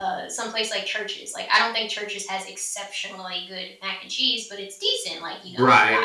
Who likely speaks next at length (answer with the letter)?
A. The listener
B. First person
A